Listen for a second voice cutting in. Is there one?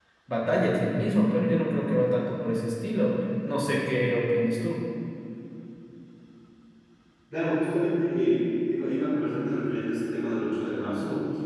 No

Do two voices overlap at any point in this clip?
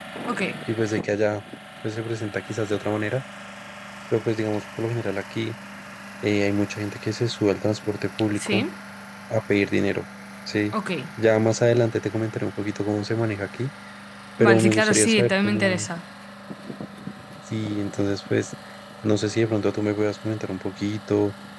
Yes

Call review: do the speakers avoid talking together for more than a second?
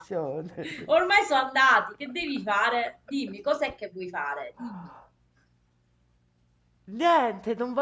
Yes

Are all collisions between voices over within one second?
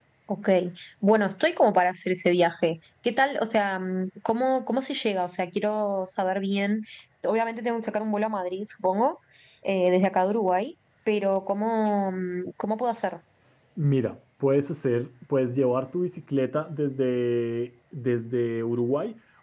Yes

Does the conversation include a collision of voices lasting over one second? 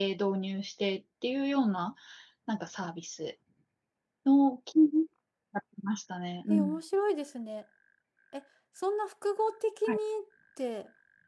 No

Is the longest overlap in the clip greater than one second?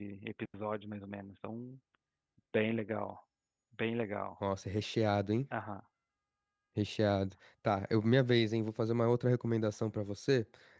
No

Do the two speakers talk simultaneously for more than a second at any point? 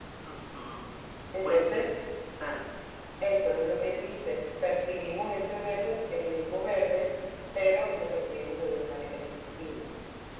No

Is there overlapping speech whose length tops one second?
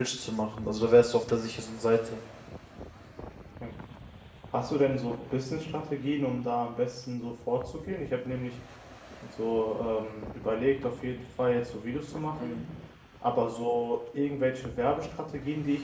No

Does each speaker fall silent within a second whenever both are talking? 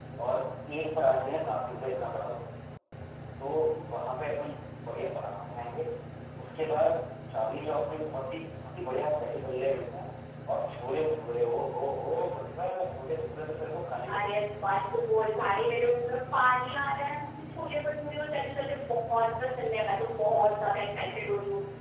Yes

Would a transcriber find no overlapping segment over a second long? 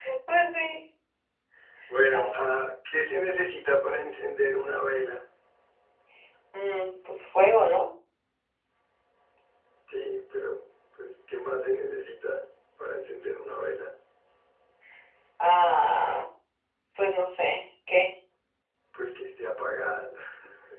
Yes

